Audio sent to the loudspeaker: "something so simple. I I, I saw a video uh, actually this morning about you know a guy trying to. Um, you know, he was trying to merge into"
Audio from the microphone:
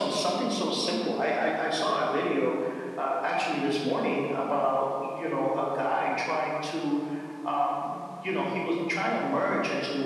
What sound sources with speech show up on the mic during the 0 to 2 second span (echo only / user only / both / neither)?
echo only